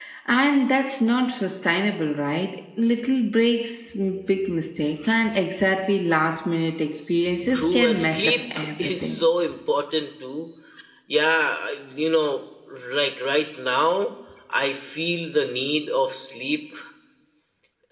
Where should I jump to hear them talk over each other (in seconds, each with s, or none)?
7.5 s